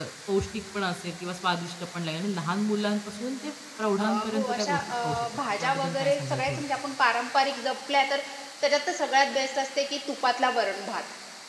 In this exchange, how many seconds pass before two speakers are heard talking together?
4 s

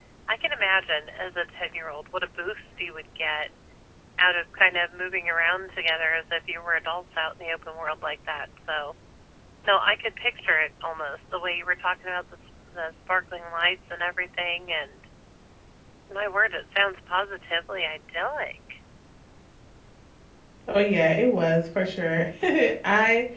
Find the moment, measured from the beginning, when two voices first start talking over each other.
none

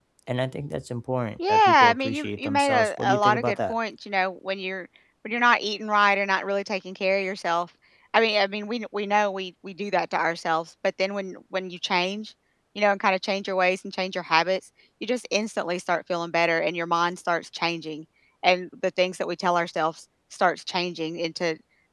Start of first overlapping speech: 1 s

